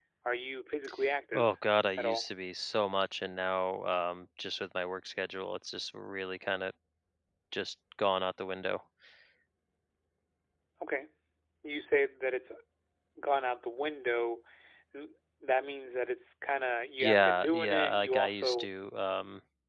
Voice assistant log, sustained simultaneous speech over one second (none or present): present